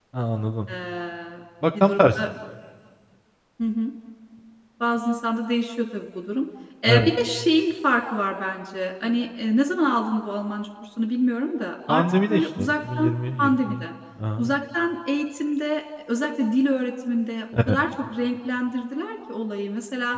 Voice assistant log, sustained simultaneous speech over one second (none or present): present